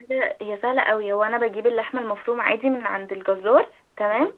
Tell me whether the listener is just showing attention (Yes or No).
Yes